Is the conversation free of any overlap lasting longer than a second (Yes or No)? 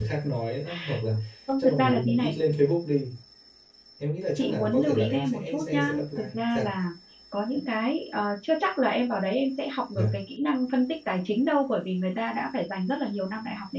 No